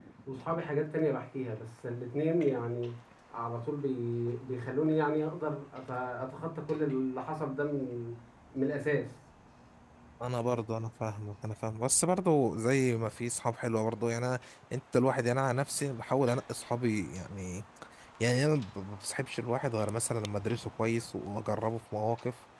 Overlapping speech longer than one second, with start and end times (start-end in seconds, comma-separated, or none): none